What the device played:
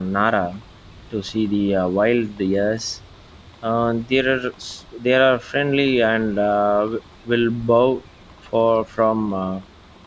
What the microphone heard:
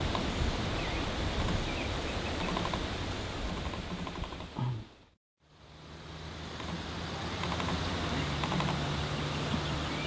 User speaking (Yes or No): No